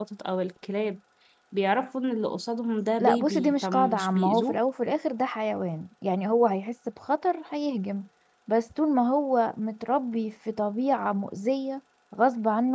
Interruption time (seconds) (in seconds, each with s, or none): 3.0 s